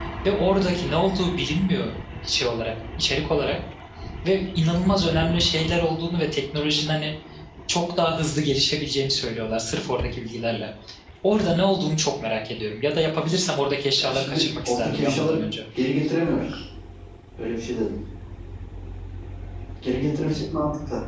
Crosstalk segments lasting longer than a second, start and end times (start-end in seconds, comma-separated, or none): 14.0-15.4